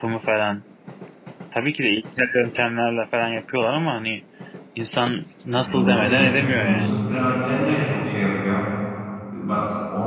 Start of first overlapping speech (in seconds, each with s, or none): 5.5 s